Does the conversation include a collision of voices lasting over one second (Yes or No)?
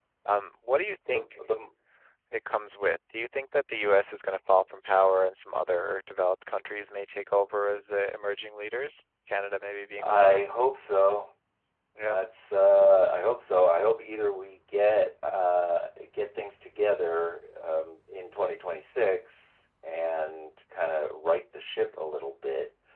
No